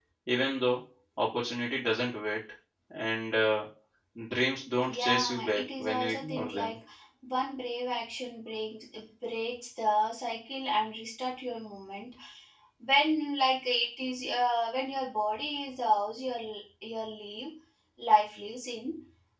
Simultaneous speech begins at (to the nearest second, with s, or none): 5 s